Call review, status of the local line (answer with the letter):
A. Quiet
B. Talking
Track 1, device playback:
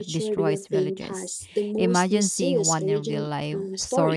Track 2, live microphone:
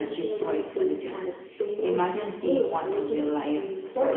A